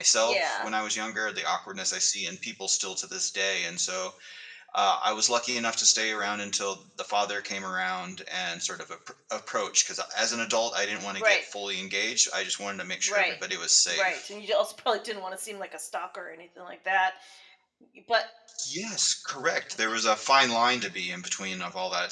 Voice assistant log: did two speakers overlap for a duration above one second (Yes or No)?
No